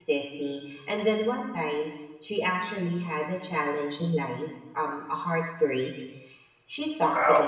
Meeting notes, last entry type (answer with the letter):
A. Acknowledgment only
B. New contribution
A